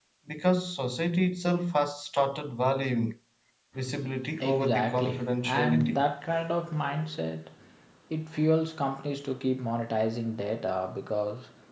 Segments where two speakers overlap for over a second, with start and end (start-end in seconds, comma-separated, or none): 4.4-6.0